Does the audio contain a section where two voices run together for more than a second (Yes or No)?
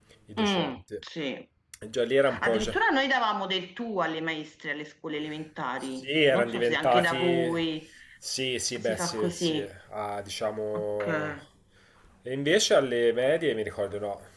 Yes